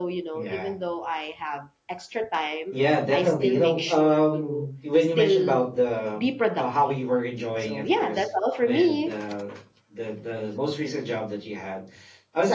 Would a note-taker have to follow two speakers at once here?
Yes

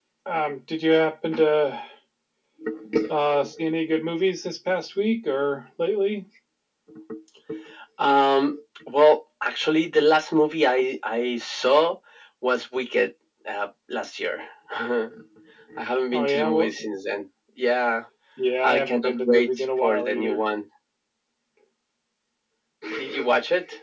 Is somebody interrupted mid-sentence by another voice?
Yes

